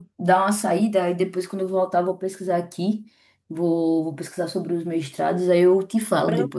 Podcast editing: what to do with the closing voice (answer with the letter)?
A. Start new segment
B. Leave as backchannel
A